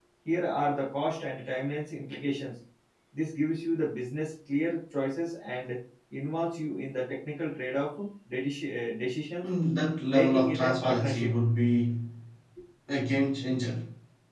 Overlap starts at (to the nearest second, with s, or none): 10 s